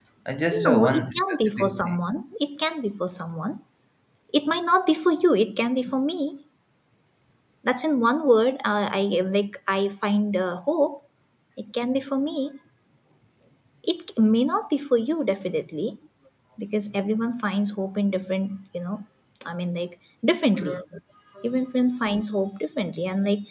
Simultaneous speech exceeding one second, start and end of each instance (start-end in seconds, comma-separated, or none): 0.6-2.0